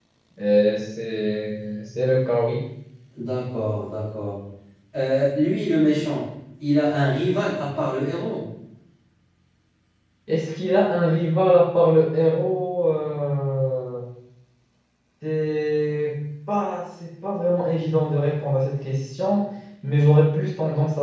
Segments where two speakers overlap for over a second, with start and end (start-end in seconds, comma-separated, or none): none